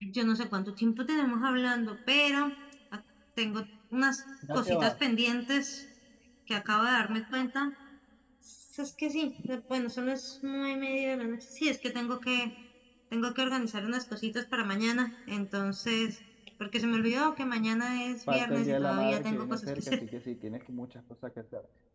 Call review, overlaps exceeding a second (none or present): present